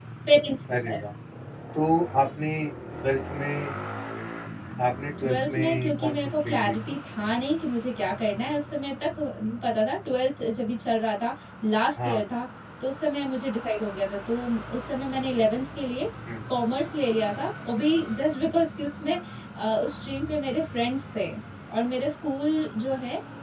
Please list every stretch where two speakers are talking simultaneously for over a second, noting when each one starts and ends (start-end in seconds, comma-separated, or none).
5.3-7.0